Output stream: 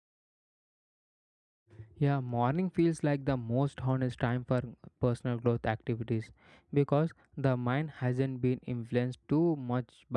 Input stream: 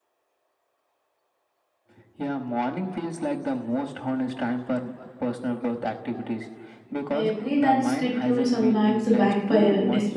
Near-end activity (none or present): present